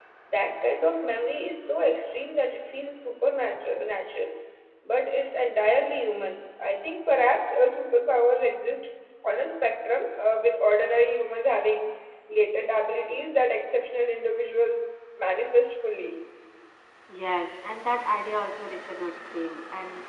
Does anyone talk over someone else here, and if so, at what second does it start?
none

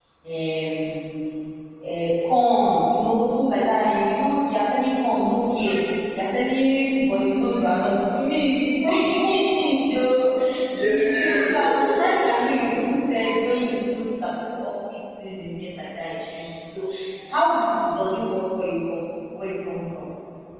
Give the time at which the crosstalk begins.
11 s

